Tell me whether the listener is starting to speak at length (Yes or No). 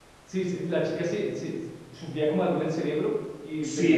Yes